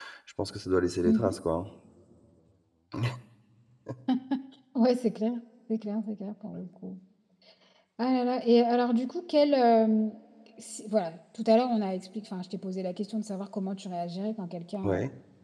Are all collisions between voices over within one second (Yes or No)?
Yes